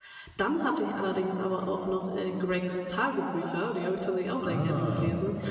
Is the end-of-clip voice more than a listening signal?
Yes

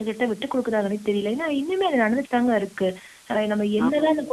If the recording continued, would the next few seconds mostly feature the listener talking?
No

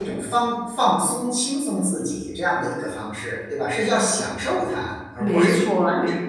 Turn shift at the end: Yes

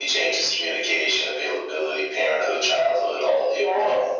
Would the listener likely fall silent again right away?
No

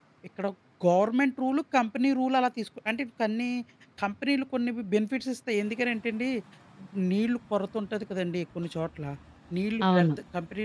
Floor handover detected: No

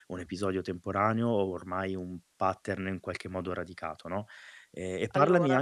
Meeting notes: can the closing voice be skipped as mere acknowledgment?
Yes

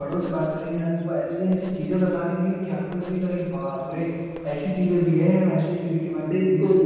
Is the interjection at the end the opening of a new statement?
No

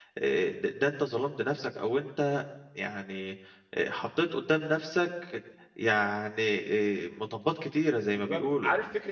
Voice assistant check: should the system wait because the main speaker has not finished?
No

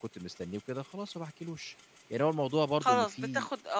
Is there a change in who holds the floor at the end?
Yes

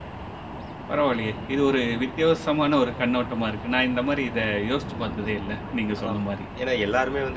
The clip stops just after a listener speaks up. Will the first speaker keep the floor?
No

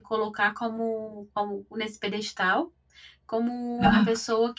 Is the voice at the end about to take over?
No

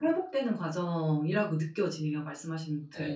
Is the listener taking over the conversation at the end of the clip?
Yes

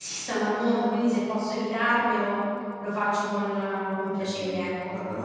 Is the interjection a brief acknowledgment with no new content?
No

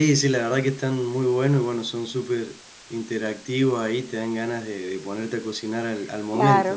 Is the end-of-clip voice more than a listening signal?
Yes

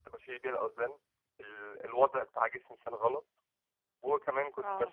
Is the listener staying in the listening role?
Yes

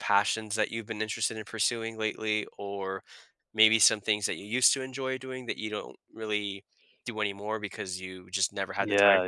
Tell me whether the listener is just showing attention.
No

